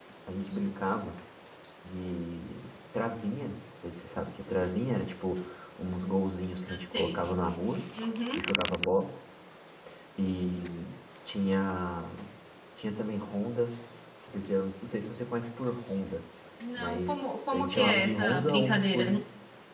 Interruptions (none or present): present